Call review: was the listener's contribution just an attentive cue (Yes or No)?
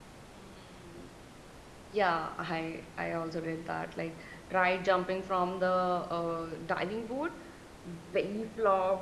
Yes